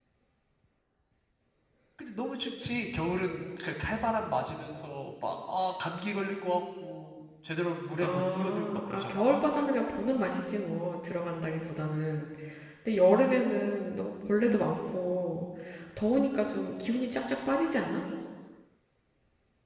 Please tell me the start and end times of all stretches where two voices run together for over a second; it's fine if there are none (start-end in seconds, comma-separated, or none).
8.0-9.3